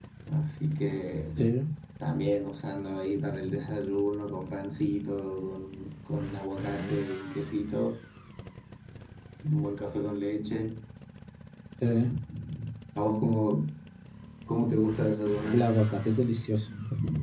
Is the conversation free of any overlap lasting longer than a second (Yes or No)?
Yes